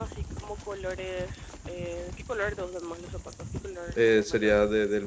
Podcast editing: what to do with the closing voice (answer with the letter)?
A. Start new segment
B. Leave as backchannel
A